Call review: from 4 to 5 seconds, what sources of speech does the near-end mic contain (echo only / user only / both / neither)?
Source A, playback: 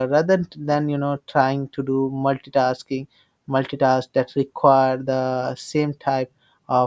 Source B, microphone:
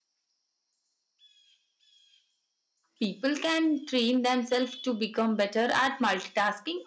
user only